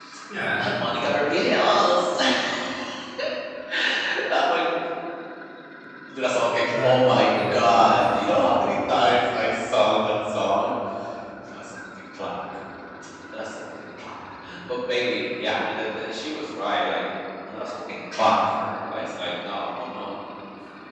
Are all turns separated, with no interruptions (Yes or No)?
No